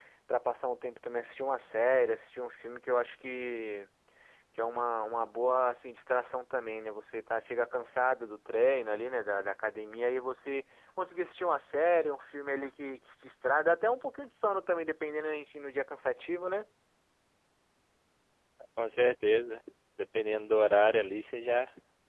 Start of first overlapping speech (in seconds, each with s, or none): none